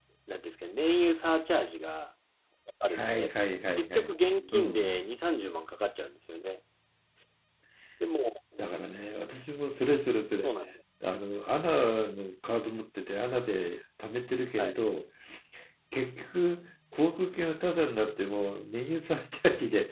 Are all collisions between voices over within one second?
Yes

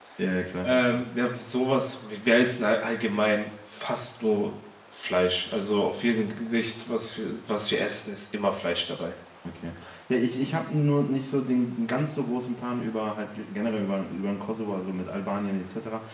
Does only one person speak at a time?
Yes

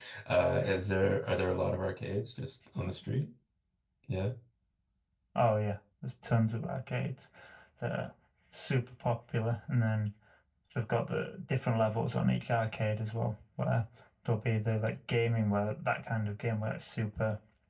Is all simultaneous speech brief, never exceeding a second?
Yes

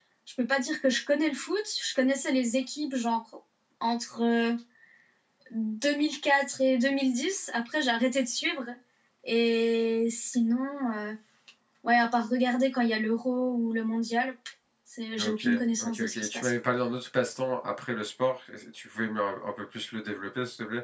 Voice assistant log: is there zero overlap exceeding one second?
No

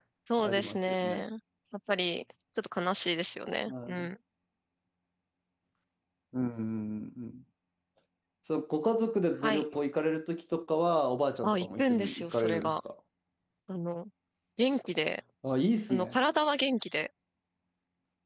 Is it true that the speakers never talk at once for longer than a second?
No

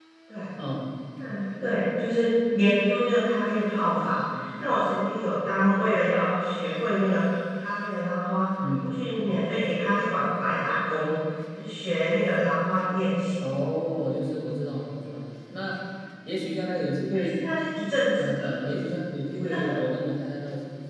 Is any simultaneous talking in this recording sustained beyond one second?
No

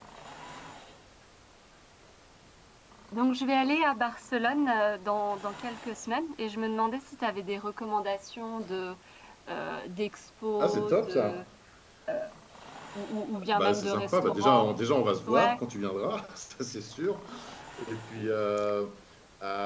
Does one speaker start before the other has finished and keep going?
Yes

